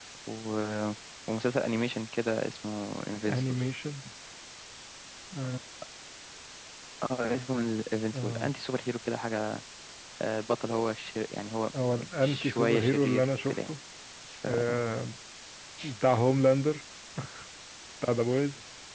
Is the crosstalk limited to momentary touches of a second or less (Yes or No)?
No